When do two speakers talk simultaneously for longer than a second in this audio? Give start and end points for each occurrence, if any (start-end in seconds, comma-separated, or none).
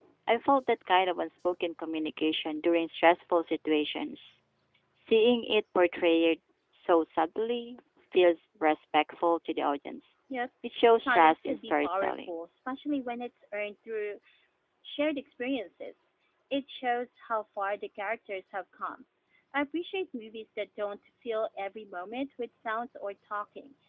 10.9-12.3